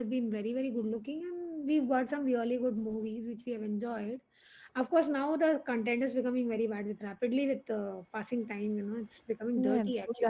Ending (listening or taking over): taking over